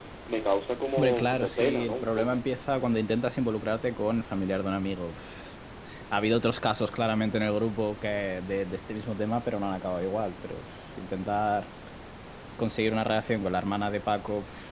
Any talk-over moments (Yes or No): Yes